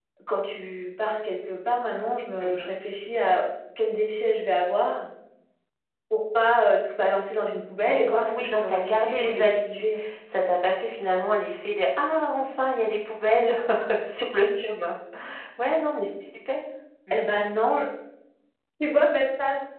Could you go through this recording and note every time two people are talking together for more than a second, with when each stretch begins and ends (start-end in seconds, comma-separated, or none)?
7.8-9.9